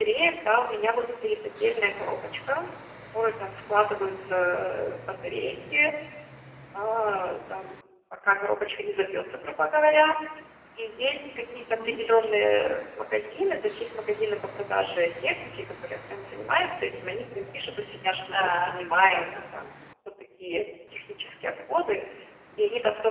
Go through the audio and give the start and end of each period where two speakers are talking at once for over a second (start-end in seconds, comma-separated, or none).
none